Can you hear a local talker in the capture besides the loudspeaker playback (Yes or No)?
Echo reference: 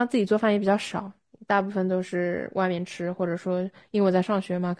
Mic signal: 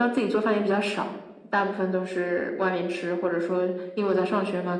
No